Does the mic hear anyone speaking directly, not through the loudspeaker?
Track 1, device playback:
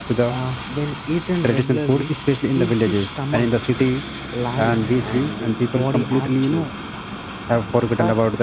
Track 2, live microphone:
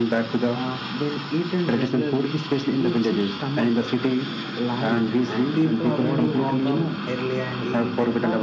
Yes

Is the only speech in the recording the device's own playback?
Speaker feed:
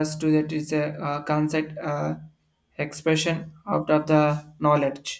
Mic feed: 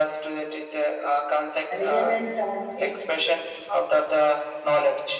No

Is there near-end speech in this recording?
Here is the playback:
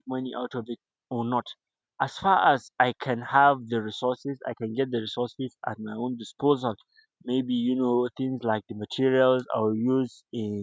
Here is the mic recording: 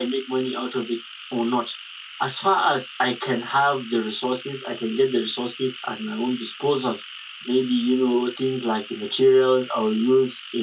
No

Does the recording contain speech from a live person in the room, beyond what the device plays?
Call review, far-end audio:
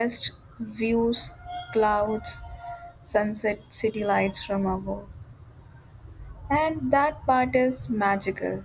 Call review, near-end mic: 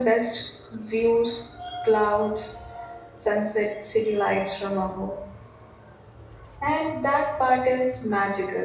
No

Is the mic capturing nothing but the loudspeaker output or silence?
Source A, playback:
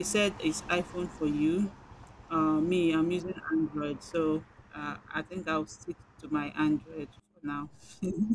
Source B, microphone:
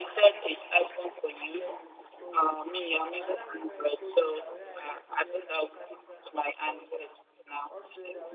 No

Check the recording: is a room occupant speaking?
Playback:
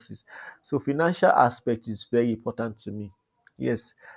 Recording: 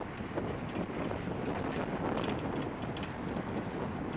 No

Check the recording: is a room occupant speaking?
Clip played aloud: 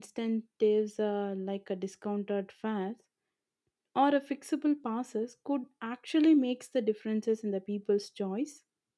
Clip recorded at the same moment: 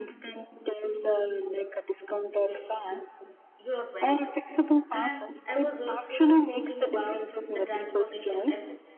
Yes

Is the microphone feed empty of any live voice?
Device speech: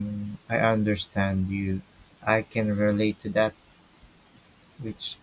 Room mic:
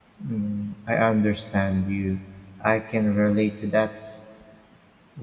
Yes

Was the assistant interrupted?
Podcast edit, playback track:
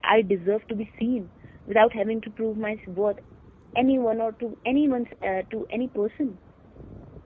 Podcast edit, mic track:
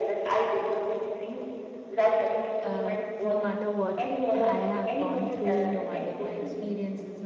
Yes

